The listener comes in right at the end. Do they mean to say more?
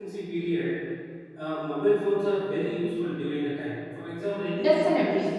No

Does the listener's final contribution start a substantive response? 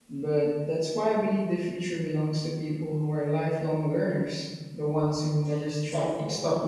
Yes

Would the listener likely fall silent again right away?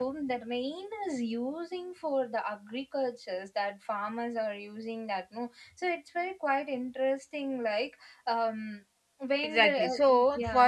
No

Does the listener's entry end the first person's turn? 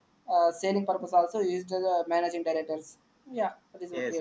Yes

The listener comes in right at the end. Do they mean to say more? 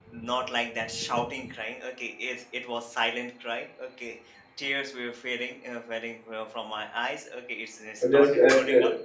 Yes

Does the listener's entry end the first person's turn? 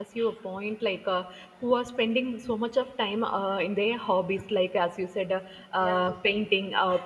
No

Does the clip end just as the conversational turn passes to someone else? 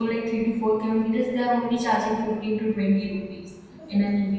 No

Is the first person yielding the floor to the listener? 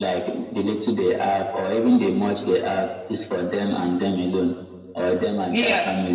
No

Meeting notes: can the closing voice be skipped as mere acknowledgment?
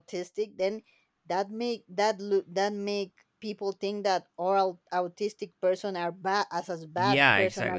No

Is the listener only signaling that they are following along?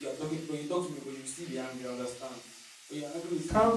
No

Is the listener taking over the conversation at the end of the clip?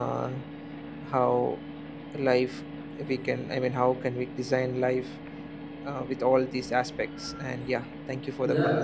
Yes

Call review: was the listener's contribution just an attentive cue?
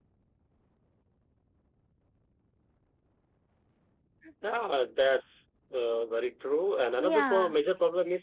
Yes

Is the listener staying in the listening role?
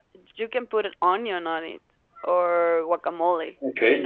Yes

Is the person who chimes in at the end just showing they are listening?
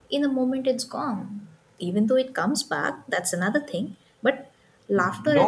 No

